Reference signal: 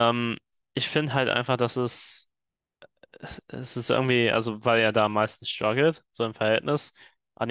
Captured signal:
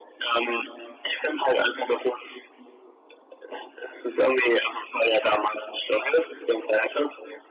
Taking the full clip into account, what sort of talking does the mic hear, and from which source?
echo only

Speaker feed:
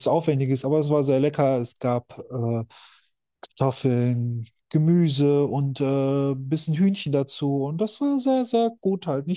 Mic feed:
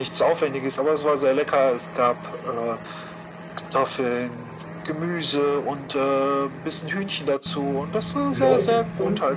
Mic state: both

